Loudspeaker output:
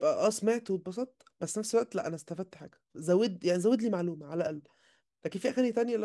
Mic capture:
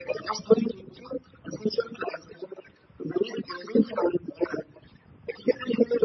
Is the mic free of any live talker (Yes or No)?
Yes